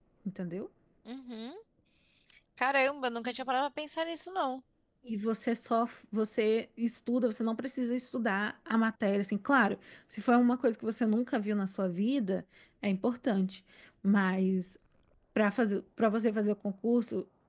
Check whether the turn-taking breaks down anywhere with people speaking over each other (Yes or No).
No